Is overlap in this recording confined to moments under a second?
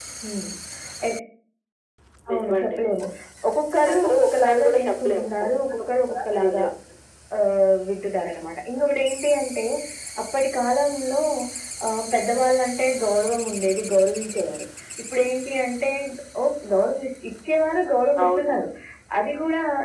No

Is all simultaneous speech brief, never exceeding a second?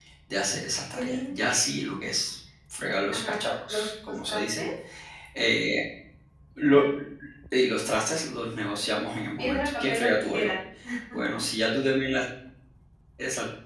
No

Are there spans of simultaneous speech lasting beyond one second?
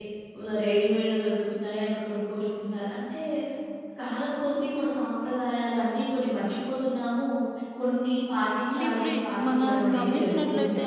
Yes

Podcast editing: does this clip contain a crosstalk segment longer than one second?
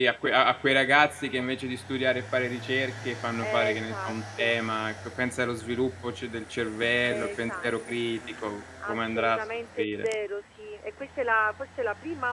Yes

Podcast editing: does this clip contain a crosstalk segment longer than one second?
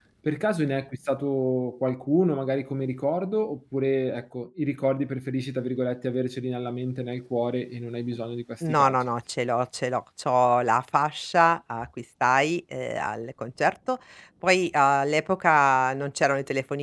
No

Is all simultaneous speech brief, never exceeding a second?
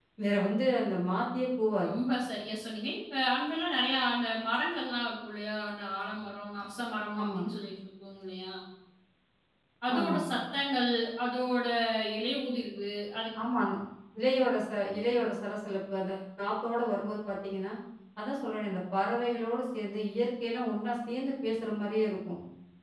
Yes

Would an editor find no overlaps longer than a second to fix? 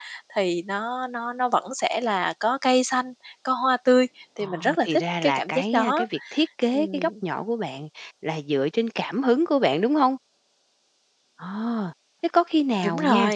No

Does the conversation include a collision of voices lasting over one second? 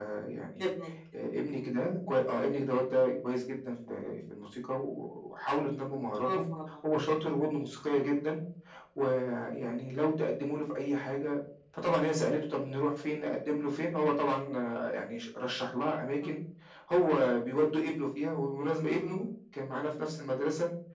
No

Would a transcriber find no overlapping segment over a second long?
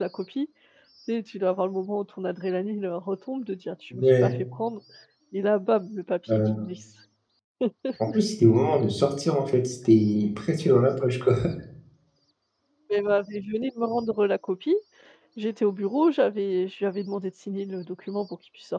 Yes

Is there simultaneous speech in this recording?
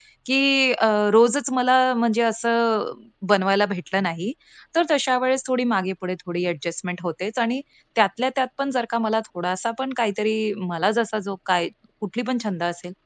No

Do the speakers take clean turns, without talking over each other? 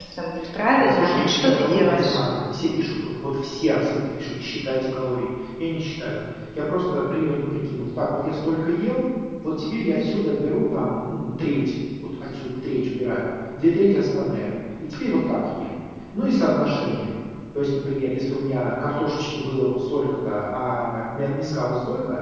No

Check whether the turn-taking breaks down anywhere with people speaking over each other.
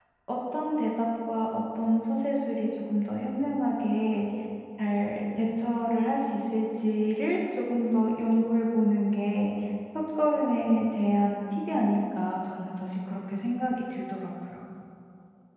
No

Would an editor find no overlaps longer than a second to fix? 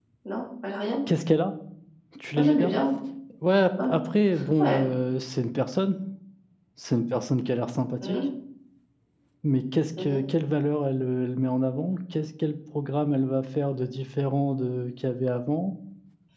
Yes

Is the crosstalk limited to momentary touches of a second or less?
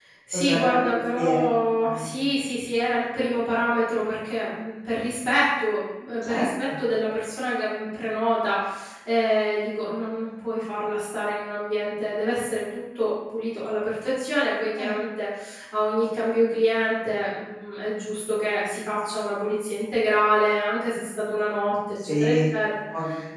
No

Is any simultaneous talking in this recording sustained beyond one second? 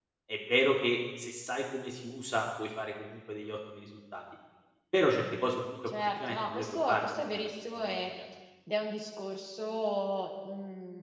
Yes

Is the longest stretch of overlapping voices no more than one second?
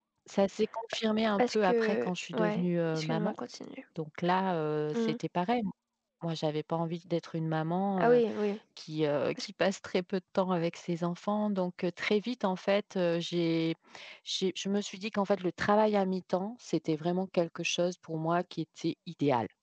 No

